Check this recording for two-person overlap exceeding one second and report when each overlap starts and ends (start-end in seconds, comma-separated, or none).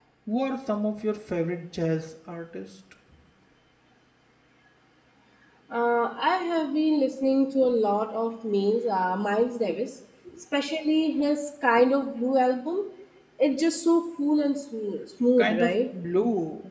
none